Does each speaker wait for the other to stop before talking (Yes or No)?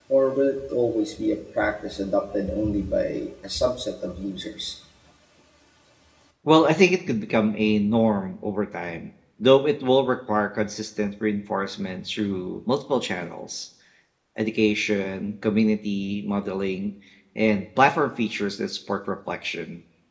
Yes